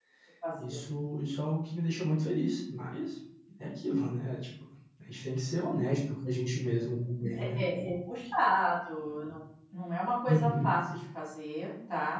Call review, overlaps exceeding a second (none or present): none